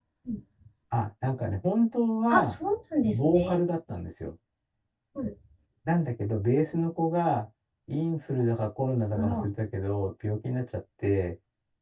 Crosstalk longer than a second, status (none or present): none